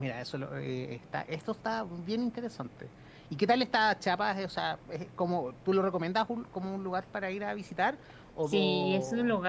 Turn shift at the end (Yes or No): Yes